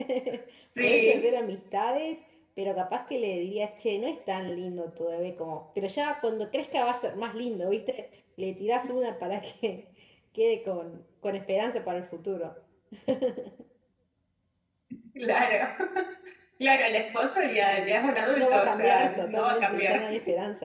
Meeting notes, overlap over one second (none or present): present